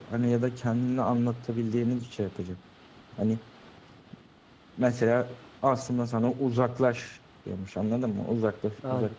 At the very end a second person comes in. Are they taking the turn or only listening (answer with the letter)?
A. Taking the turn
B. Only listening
B